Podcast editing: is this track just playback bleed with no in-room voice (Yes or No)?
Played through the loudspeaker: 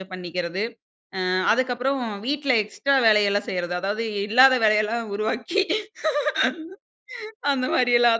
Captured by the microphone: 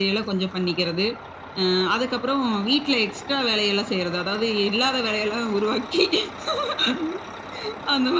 Yes